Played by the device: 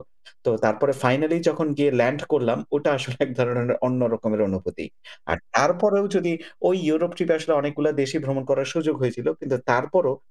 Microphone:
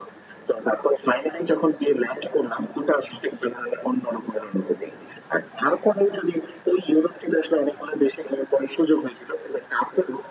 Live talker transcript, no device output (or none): none